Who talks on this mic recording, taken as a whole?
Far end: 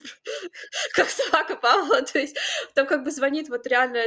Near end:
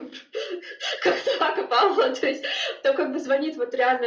echo only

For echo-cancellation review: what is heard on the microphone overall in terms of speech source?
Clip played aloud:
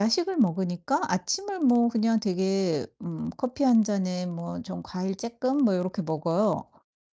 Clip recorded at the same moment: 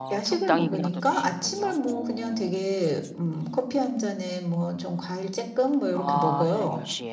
both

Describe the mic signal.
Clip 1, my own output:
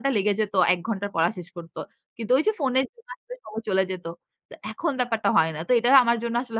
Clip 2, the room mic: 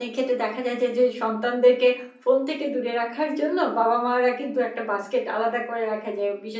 user only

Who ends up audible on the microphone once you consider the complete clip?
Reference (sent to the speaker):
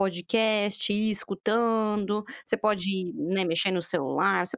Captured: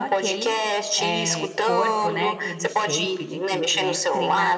both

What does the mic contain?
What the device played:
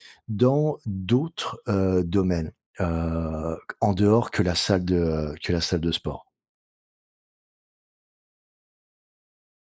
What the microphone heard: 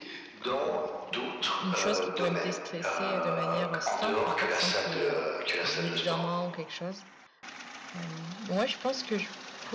both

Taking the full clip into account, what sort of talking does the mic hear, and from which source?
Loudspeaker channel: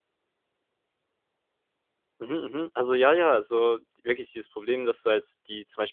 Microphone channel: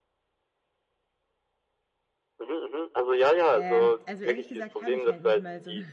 both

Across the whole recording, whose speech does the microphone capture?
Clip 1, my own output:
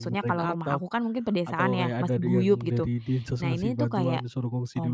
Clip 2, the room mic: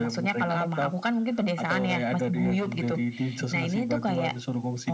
echo only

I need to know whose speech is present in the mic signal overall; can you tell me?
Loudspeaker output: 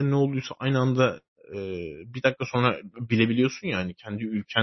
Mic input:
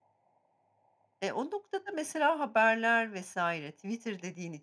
user only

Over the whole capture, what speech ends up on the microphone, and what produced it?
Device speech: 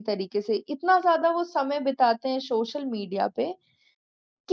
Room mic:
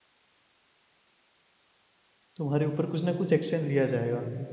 user only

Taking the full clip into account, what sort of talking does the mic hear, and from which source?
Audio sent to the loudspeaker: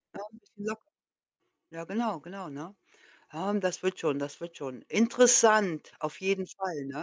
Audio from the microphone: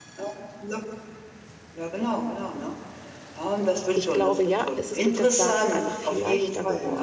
both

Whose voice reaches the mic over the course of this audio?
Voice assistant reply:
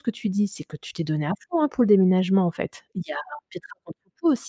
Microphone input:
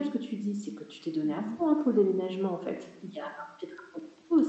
both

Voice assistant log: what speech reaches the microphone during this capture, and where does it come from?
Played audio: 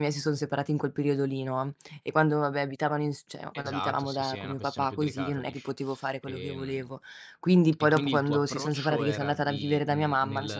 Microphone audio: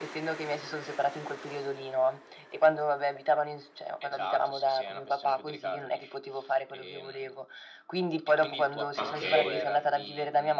both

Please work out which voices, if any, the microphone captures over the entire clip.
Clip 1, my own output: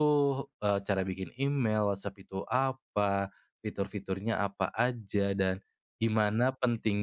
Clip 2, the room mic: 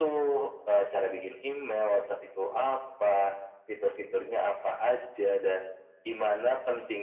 echo only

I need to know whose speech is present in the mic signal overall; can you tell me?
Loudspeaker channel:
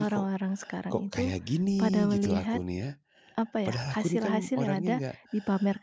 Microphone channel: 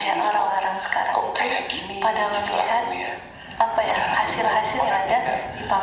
echo only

